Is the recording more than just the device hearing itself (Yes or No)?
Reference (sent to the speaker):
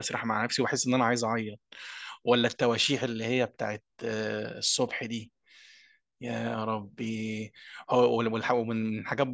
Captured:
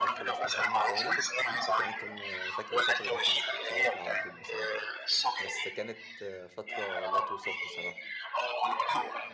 Yes